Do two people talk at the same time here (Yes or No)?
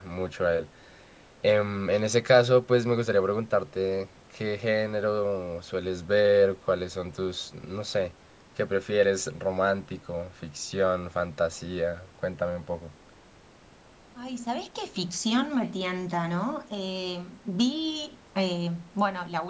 No